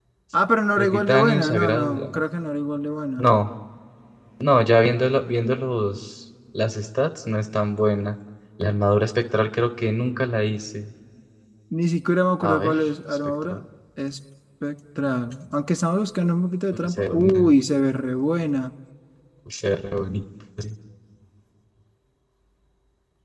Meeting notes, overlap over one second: present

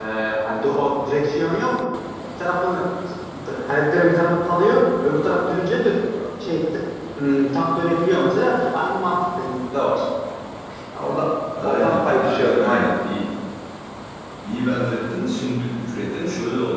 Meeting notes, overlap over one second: present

